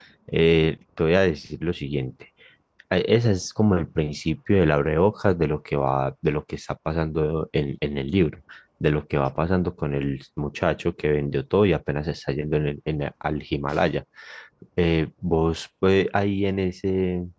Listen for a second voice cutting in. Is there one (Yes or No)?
No